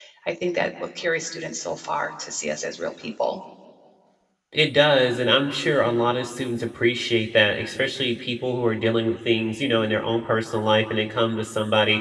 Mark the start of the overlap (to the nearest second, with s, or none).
none